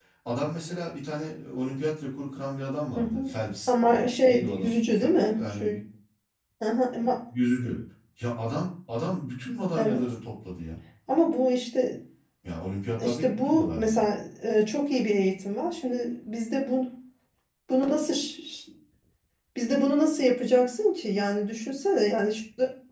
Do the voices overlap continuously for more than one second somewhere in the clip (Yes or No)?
Yes